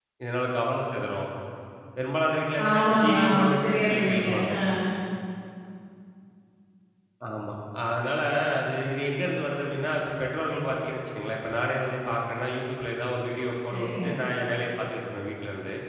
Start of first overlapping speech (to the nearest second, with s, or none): 3 s